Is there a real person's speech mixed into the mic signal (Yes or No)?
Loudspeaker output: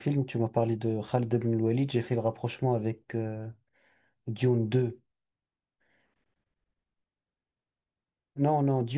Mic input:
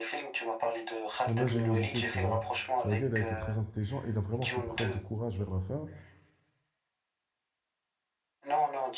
Yes